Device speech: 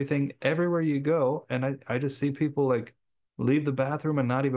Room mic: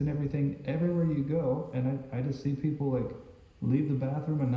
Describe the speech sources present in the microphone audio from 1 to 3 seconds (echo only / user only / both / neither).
echo only